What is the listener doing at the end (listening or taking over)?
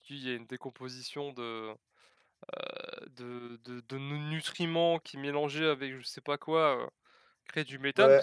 taking over